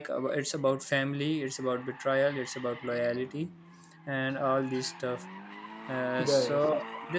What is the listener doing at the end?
listening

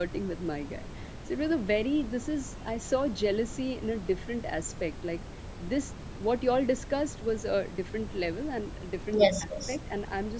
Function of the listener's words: listening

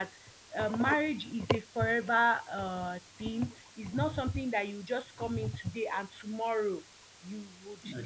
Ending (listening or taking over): taking over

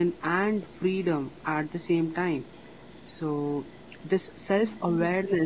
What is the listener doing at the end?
listening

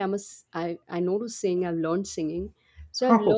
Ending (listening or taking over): listening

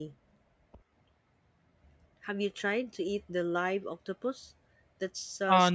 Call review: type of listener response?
listening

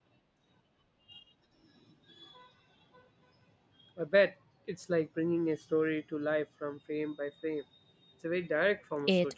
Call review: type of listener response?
taking over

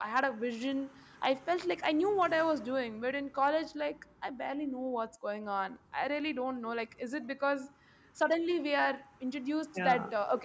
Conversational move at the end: listening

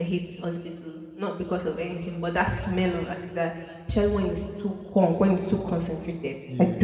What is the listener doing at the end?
taking over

